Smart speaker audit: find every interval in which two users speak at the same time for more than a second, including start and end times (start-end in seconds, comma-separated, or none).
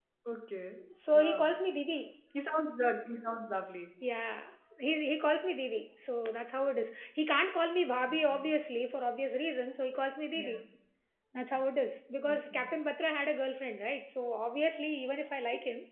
none